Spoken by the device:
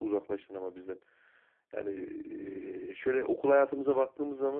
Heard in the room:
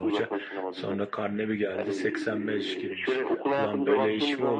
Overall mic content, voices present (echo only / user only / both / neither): both